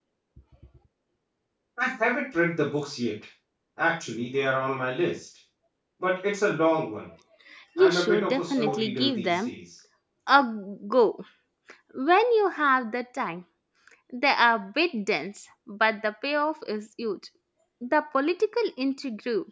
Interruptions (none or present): present